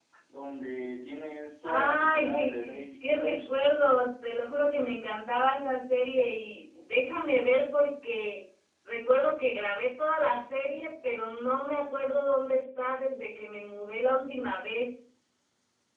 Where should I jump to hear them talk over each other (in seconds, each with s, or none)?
1.6 s